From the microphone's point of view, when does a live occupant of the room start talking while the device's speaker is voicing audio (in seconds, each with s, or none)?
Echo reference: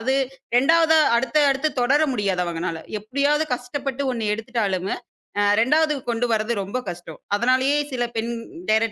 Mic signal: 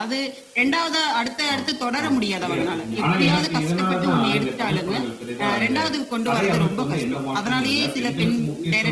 1.5 s